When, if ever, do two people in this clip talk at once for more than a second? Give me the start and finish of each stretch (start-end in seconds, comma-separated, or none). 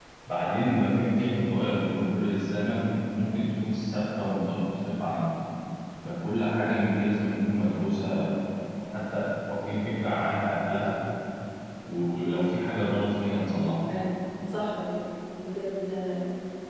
none